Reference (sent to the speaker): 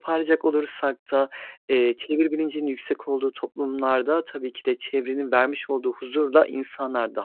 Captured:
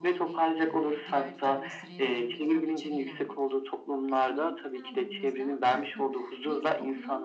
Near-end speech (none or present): present